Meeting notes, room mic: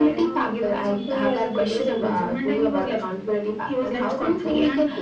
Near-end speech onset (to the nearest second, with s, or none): none